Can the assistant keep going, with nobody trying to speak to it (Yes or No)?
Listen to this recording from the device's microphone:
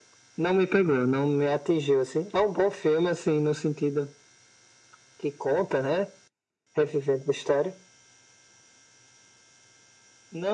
Yes